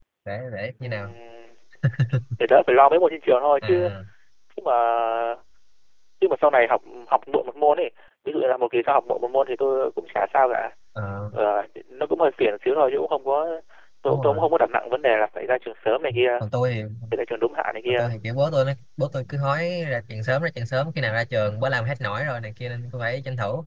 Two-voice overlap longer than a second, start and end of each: none

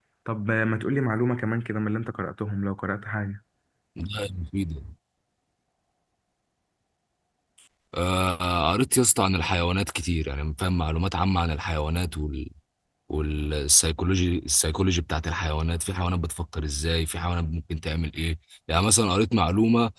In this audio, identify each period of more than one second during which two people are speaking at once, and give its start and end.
none

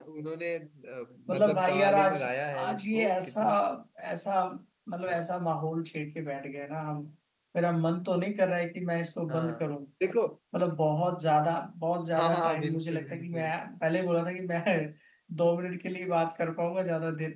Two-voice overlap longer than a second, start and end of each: 1.4-3.4, 12.2-13.5

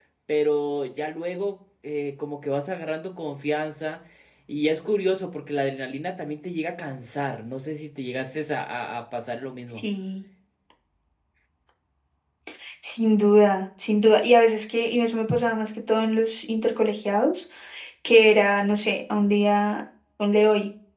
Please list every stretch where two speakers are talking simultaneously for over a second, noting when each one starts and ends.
none

